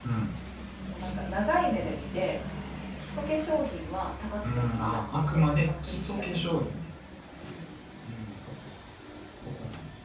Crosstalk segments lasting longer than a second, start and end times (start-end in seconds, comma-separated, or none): 4.4-6.7